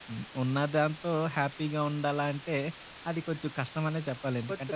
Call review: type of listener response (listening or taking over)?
taking over